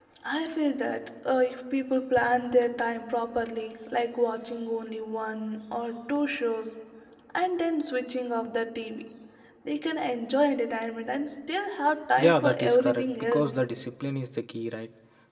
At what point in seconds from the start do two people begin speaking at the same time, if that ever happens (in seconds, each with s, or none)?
12.2 s